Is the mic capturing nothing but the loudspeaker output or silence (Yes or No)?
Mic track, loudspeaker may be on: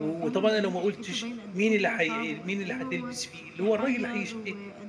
No